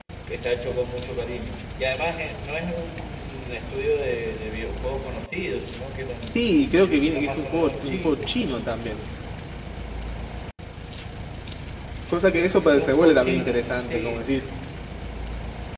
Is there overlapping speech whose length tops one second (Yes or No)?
Yes